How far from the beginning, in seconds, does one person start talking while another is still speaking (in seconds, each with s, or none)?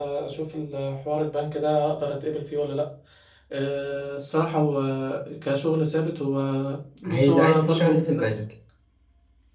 7.1 s